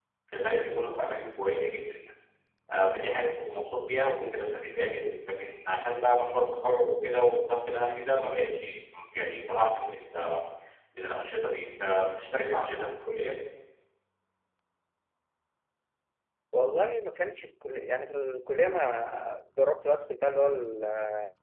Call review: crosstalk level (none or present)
none